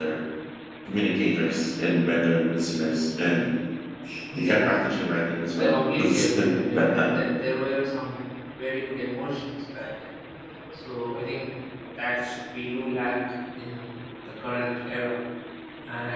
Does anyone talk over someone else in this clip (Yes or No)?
Yes